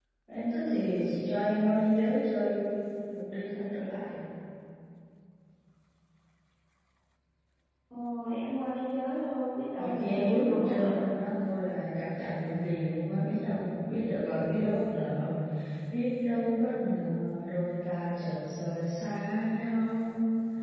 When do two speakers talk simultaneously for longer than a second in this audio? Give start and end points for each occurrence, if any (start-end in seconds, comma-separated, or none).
9.8-11.0